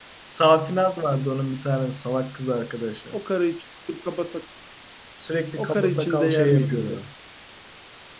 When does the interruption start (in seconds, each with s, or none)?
5.6 s